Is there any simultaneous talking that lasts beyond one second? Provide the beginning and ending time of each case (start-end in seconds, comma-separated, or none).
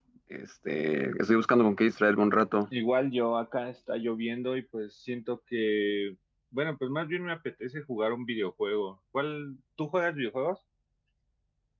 none